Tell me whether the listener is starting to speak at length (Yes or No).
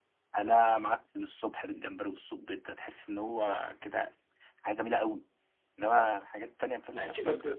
Yes